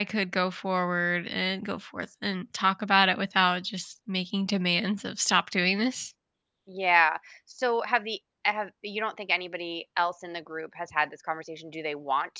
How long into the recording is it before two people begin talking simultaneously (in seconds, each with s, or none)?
none